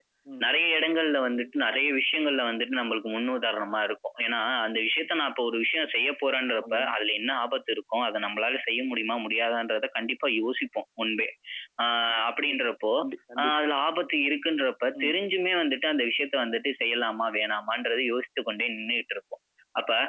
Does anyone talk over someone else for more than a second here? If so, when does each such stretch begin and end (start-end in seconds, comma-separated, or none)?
none